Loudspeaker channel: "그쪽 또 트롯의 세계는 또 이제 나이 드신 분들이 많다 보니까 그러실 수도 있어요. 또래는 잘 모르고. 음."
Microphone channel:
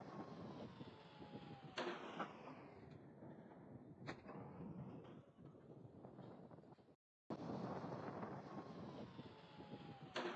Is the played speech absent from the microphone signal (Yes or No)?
Yes